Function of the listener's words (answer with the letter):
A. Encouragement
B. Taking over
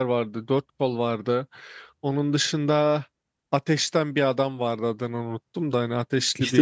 B